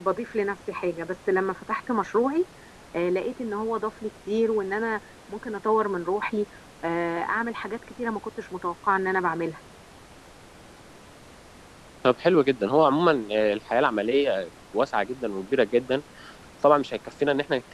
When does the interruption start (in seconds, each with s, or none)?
none